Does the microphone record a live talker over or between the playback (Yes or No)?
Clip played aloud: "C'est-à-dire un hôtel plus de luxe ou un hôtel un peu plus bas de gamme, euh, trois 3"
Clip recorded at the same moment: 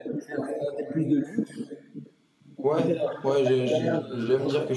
Yes